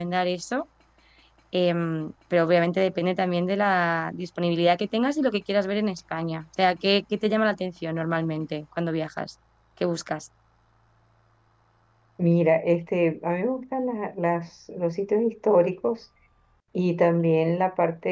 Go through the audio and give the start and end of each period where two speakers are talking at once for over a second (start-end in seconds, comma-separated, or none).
none